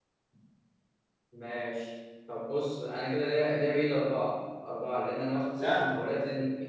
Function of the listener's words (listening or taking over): listening